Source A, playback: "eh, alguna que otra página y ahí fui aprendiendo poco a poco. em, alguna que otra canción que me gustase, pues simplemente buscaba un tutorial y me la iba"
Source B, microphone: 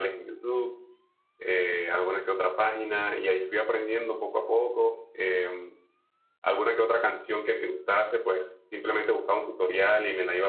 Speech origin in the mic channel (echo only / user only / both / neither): echo only